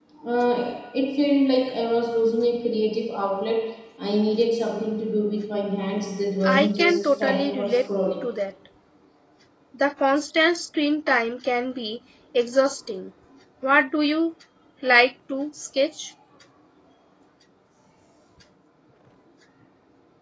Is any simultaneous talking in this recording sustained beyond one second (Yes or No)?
Yes